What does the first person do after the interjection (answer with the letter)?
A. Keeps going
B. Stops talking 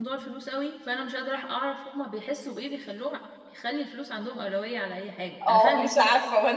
B